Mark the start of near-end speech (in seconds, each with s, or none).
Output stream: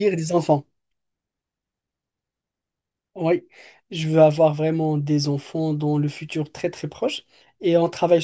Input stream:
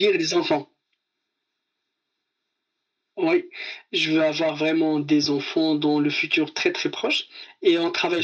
none